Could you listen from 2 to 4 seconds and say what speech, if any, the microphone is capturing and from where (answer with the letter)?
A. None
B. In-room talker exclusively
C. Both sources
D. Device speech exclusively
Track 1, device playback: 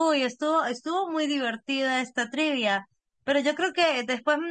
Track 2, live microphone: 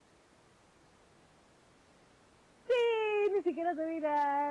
B